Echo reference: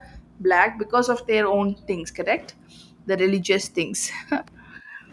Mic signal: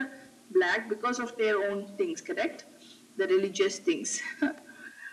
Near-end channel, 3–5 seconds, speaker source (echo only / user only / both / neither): echo only